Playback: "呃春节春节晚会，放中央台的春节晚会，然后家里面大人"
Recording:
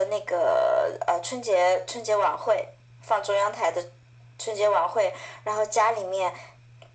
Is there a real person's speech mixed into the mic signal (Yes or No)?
No